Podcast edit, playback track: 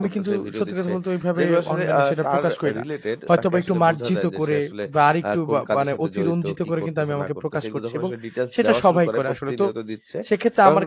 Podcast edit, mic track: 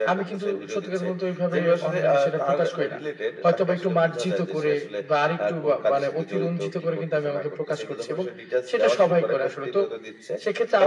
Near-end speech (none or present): none